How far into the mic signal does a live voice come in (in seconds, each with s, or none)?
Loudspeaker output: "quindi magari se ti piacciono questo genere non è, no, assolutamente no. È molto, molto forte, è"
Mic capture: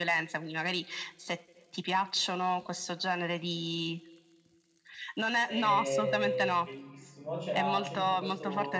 5.4 s